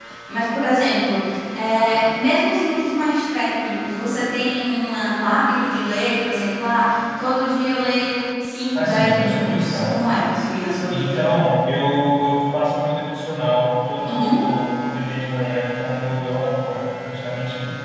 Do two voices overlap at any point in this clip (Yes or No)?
Yes